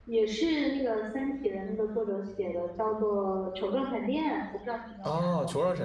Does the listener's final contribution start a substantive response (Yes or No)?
Yes